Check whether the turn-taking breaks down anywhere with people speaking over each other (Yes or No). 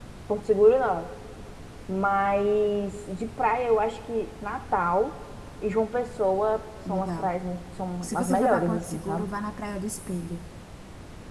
Yes